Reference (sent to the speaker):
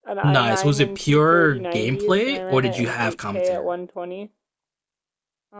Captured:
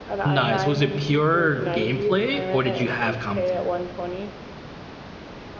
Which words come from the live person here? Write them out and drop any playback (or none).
none